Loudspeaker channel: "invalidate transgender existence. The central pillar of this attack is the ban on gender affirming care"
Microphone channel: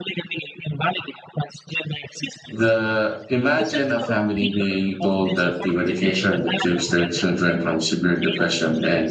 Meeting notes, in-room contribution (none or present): present